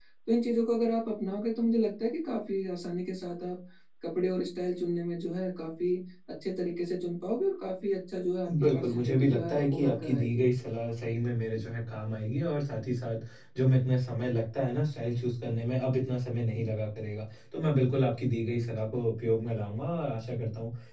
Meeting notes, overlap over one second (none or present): present